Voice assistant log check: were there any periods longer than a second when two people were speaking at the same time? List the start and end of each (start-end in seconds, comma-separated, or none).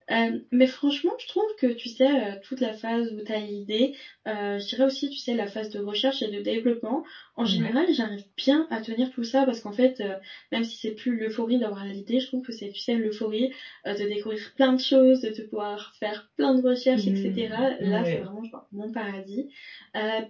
16.9-18.2